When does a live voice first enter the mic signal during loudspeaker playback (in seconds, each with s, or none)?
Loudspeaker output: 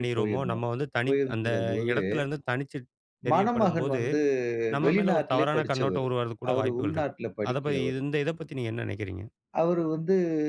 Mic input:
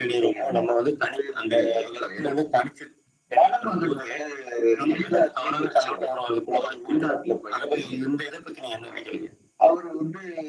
none